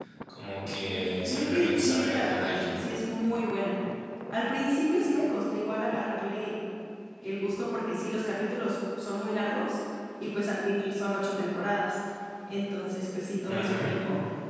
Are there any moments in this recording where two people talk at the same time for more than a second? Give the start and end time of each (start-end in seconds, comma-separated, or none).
0.8-2.8